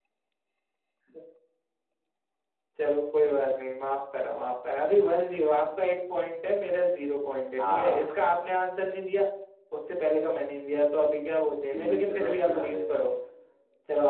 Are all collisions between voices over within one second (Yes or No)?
No